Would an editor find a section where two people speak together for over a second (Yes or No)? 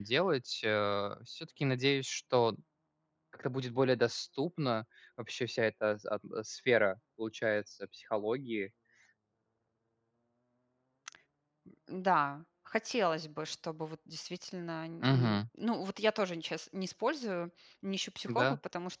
No